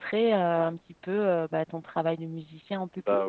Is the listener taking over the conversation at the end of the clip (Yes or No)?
Yes